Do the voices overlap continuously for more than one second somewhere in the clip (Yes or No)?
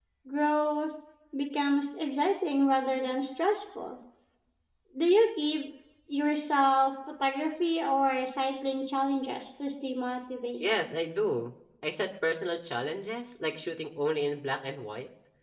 No